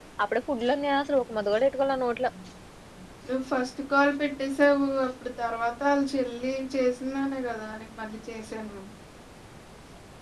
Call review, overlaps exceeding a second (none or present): none